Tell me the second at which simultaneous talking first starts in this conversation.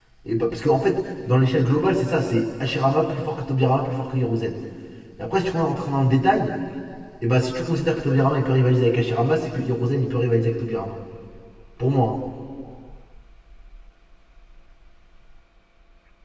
none

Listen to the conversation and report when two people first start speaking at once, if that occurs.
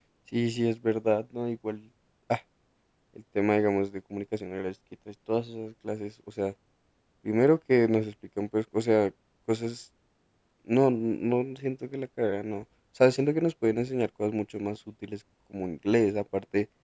none

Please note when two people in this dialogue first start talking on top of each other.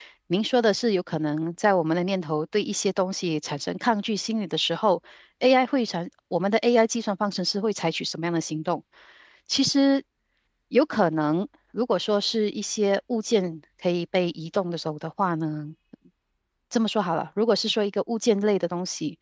none

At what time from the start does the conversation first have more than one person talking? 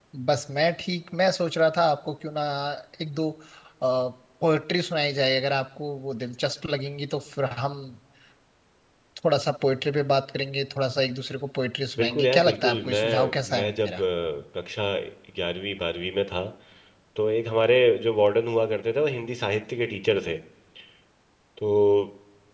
12.0 s

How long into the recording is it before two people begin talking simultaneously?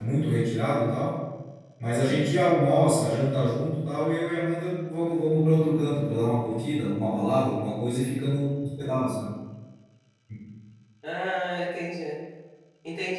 none

